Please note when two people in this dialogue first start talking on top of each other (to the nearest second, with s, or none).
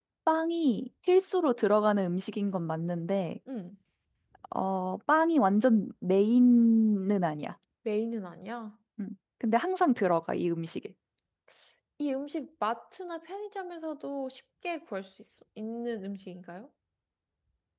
none